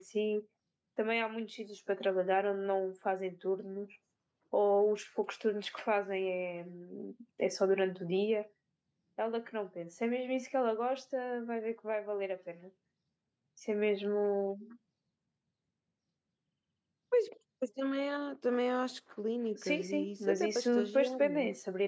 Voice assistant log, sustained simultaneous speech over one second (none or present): present